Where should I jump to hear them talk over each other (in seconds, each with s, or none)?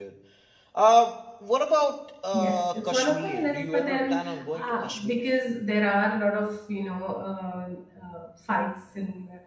2.3 s